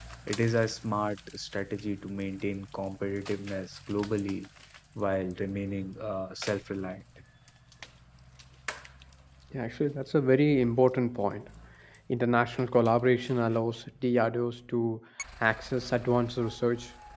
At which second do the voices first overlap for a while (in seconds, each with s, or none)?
none